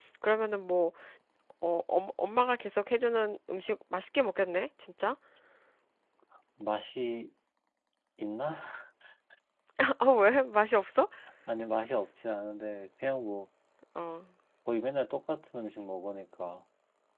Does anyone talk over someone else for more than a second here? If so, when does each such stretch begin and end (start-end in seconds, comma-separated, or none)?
none